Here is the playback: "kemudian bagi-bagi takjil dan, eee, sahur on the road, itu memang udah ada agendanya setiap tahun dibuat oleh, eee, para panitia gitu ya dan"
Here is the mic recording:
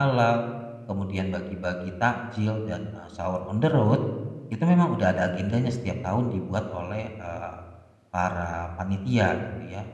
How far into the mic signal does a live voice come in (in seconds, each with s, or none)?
none